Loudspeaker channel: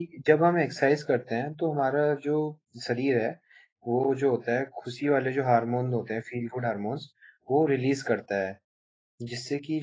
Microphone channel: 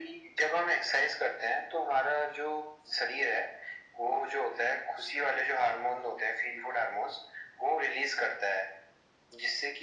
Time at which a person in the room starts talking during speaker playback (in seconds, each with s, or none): none